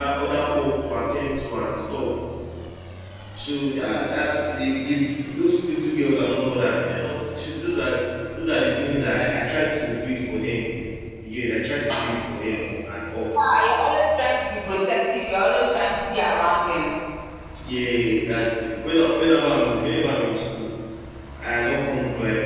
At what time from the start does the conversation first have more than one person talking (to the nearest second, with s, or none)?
none